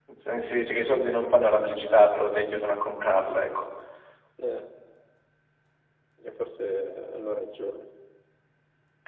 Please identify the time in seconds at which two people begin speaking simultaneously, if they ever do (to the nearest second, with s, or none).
none